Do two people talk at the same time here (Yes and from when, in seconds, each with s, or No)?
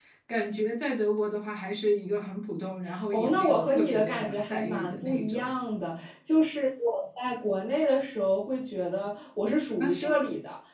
Yes, from 3.1 s